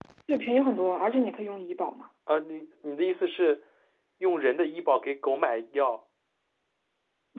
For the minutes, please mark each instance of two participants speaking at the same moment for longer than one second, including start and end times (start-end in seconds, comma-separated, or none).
none